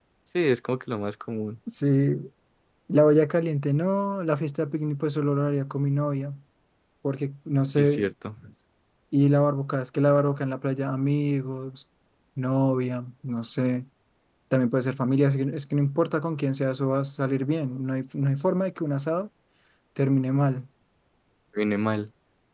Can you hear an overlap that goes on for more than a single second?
No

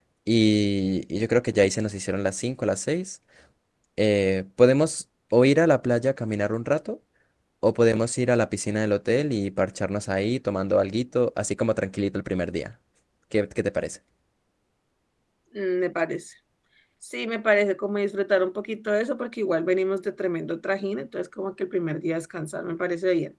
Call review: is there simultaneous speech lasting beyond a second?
No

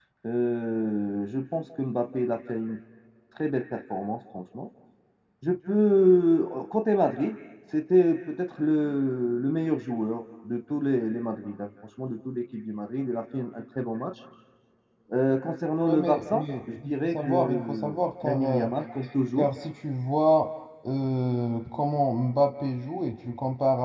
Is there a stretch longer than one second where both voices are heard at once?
Yes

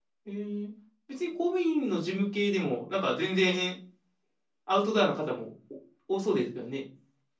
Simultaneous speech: No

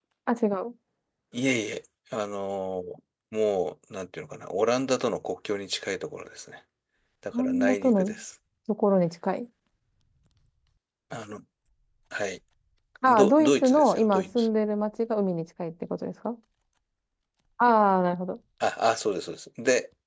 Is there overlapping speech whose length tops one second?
Yes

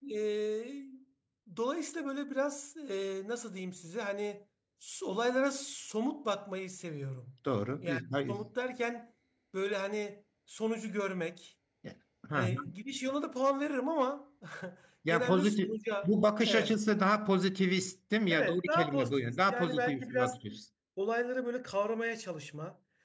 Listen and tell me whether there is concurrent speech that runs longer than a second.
Yes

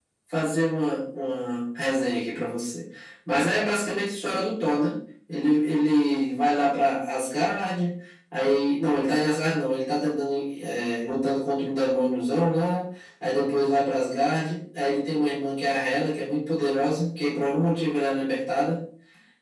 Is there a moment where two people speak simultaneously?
No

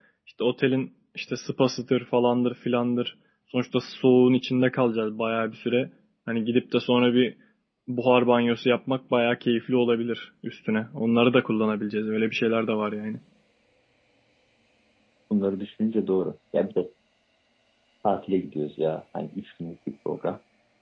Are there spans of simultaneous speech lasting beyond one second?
No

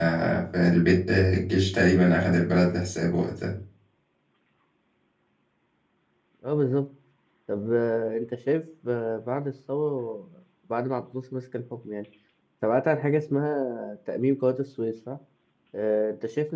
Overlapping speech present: No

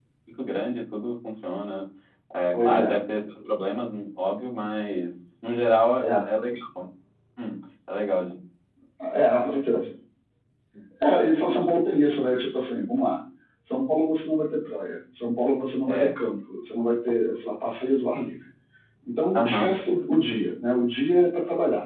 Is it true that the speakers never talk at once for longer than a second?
Yes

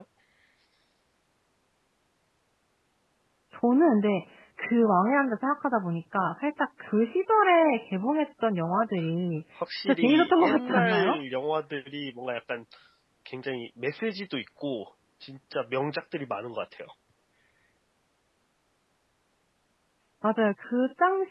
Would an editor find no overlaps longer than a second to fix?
No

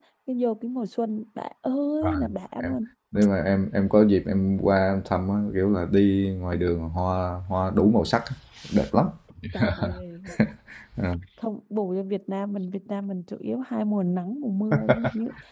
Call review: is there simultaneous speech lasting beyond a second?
No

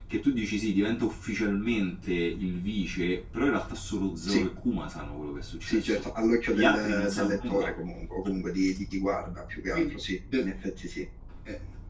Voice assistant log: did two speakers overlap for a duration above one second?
Yes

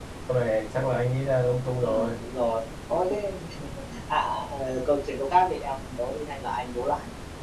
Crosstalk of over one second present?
No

